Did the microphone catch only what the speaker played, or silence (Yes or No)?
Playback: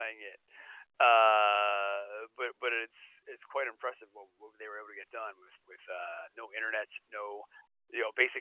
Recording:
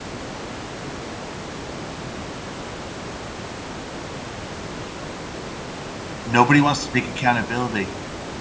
No